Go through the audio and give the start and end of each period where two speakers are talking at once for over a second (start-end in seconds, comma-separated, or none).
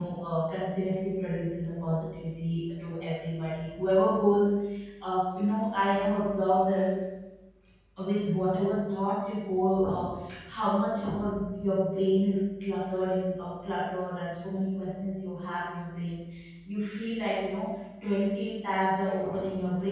none